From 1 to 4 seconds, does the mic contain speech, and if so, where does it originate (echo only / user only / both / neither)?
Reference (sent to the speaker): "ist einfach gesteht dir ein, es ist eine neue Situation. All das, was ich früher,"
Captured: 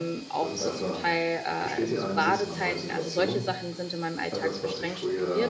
both